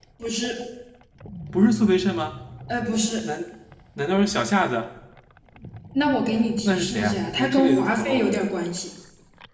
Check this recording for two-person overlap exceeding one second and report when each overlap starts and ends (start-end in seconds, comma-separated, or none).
6.7-8.4